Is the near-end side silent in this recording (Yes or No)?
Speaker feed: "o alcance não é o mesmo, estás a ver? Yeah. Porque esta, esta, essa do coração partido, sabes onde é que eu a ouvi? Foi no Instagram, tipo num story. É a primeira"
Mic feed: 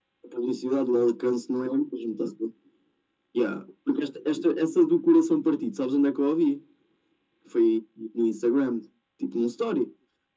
Yes